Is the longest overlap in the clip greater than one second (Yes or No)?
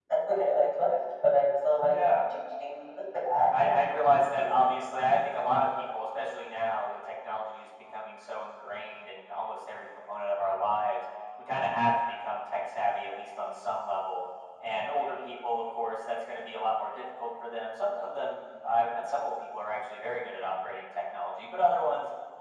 Yes